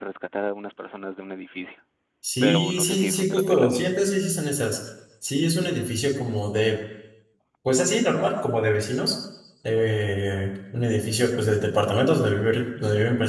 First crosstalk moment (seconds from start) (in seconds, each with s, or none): 2.4 s